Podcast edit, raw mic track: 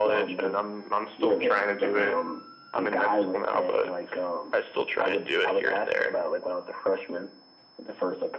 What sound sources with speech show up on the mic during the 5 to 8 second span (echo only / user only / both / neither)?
echo only